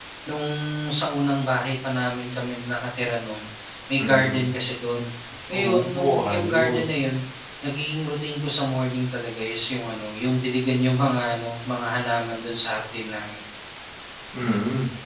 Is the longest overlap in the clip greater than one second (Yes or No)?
Yes